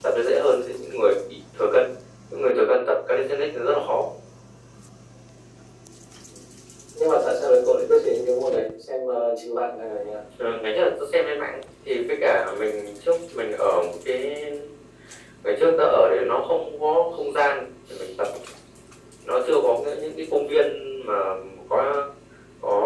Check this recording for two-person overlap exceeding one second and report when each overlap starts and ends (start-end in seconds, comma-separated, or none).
none